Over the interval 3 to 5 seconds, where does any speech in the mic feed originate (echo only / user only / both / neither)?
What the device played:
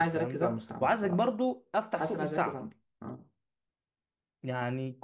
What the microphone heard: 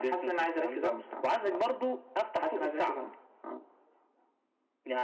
echo only